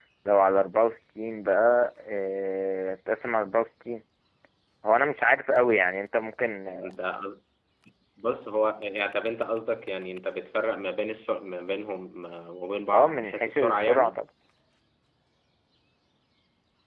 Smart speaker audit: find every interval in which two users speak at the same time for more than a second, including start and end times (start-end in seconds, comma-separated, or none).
12.9-14.2